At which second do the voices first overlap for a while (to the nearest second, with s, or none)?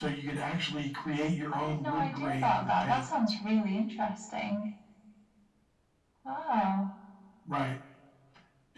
2 s